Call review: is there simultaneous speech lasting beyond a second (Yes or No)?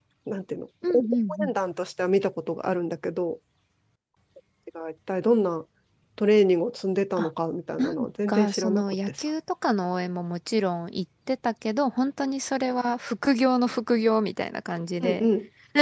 Yes